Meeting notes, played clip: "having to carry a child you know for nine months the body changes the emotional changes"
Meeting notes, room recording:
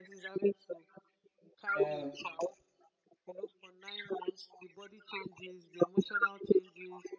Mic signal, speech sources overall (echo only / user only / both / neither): both